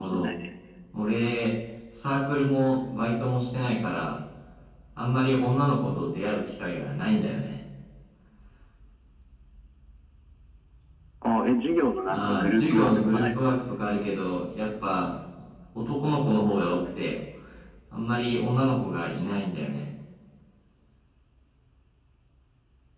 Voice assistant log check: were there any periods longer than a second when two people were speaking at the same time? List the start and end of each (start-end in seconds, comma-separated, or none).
12.1-13.4